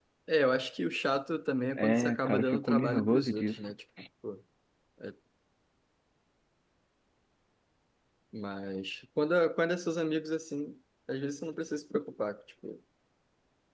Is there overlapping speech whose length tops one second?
Yes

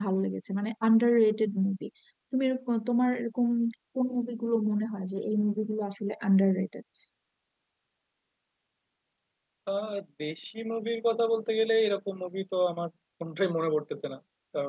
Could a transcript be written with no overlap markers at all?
Yes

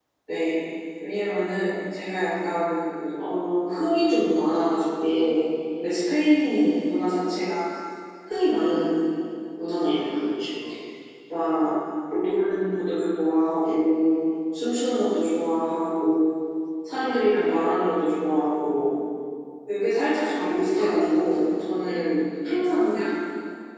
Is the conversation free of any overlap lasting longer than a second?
No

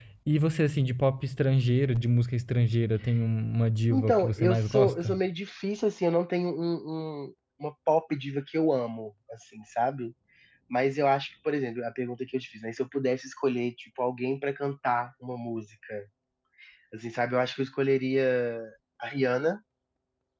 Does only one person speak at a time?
No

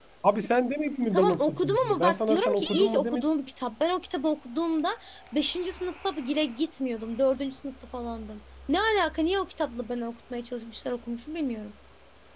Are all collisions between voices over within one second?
No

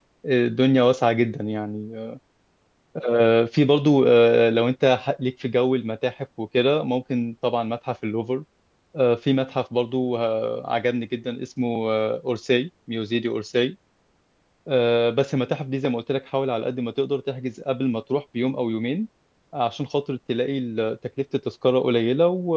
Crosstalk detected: No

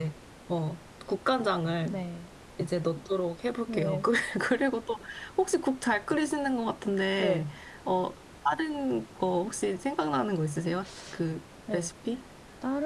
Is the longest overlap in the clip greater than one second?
No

